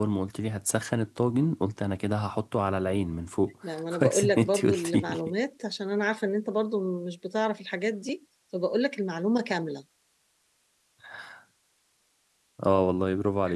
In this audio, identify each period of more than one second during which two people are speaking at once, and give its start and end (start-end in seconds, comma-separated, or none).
4.0-5.2